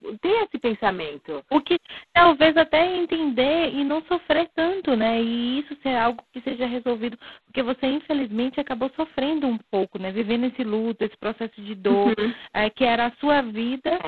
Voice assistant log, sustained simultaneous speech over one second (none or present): none